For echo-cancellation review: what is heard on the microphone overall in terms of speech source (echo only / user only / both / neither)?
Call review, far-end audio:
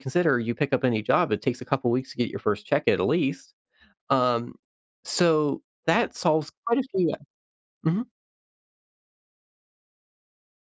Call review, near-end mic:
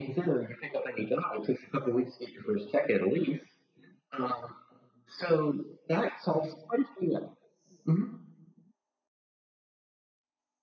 echo only